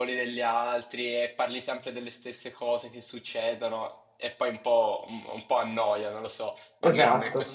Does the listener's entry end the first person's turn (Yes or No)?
Yes